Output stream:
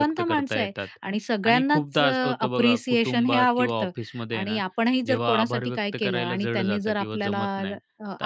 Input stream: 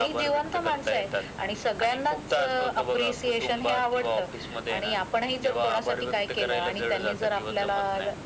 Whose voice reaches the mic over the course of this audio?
echo only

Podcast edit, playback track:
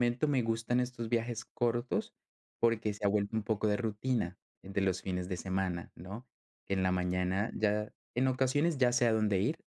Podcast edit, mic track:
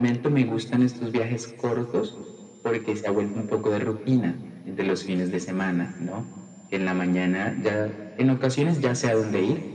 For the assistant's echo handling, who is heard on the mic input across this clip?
echo only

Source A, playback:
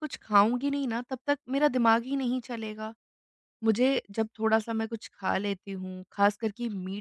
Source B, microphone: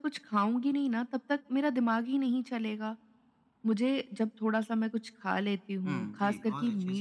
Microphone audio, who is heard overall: both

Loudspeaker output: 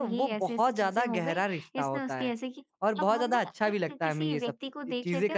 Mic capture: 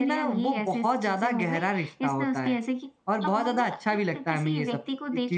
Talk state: echo only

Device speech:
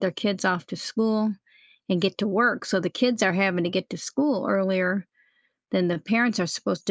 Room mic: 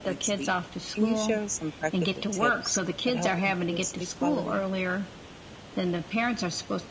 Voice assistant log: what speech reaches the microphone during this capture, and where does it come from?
both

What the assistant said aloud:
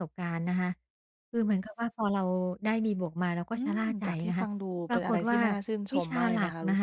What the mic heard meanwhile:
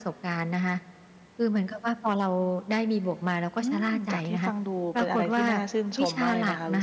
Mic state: echo only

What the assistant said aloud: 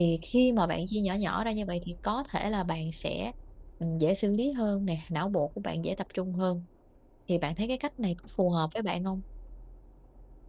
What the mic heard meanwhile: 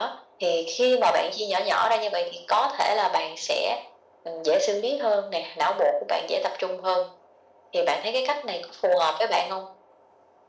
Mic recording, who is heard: echo only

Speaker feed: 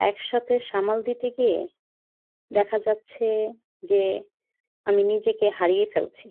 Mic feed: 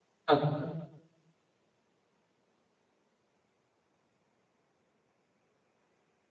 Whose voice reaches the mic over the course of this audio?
user only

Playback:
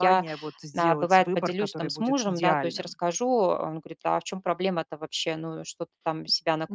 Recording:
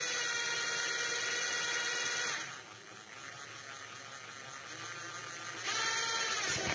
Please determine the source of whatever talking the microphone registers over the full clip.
neither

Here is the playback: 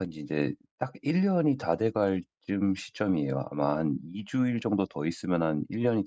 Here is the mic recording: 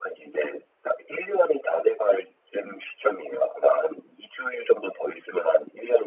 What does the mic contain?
echo only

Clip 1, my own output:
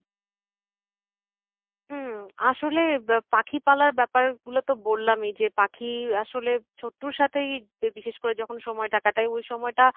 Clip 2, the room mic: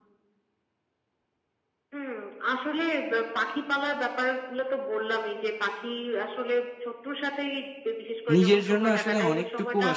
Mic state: both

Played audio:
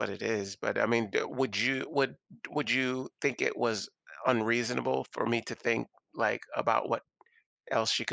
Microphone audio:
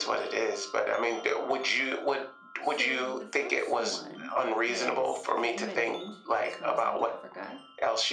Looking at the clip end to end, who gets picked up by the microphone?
both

